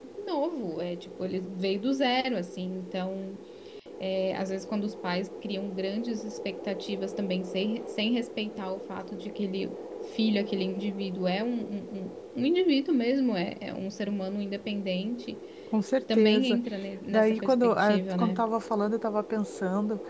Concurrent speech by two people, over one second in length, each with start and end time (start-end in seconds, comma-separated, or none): 17.1-18.4